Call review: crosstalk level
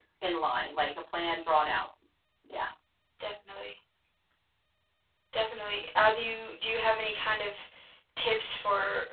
none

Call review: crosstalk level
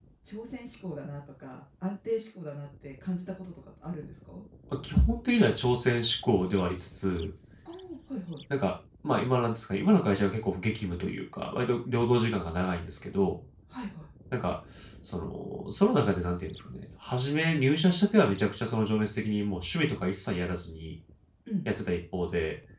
none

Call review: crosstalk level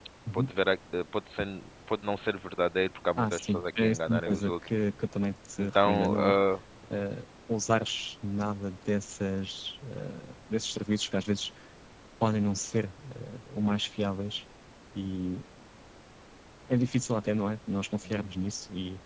present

